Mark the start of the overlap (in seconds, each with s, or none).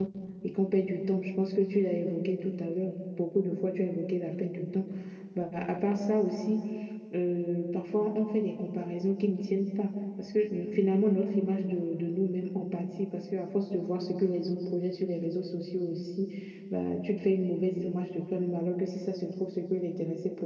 none